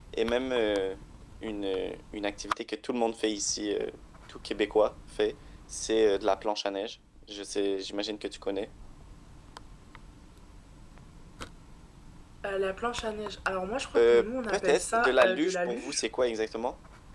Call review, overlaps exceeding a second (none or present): present